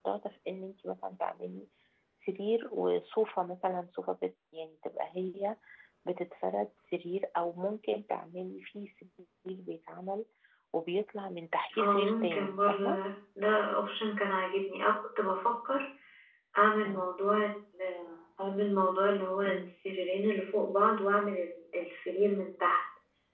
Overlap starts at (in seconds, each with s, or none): 11.8 s